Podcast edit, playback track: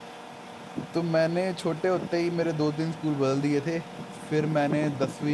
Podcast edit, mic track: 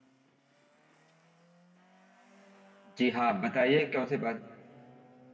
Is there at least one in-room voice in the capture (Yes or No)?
Yes